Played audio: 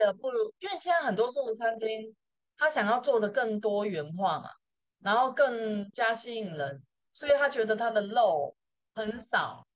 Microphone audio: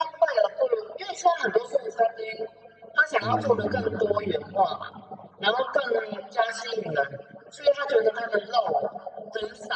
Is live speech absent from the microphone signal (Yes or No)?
No